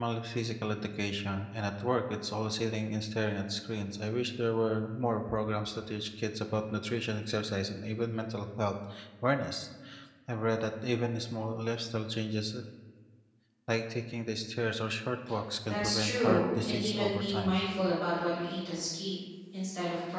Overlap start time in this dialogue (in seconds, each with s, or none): 15.7 s